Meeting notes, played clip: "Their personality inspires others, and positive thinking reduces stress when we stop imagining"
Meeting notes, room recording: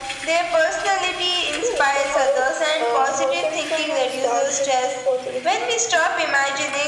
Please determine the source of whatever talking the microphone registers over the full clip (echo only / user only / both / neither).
both